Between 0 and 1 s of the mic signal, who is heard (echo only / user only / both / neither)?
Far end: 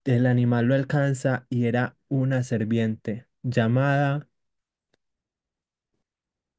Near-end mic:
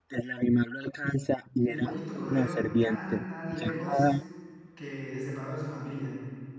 echo only